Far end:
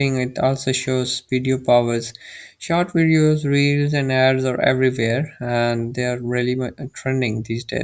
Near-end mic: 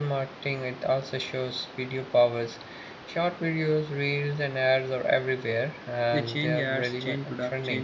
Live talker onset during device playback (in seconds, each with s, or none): 6.1 s